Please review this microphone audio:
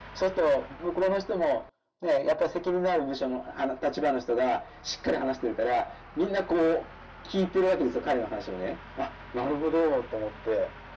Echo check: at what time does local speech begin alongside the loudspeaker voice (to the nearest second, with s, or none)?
none